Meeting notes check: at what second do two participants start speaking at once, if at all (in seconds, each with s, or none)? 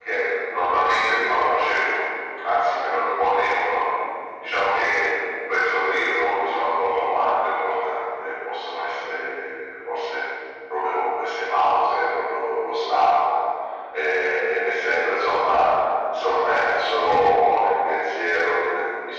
none